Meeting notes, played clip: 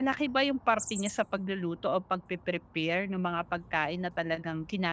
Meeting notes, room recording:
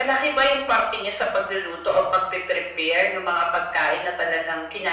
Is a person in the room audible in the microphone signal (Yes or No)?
No